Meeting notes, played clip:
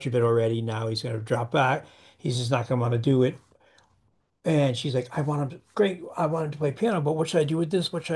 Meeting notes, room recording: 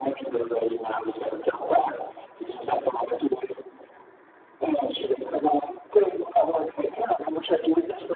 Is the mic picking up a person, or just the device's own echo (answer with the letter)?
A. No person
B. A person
A